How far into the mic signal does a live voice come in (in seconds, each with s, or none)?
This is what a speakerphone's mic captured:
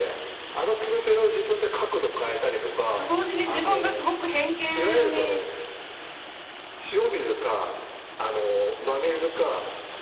3.0 s